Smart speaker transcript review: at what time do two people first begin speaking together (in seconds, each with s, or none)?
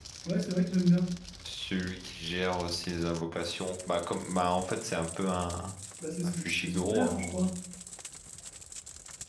6.2 s